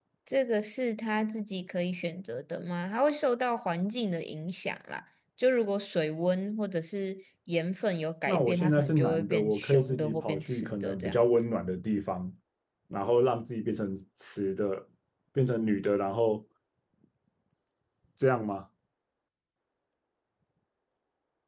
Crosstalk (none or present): present